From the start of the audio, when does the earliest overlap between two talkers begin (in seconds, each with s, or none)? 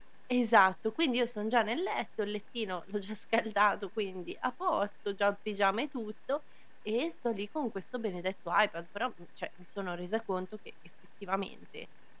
none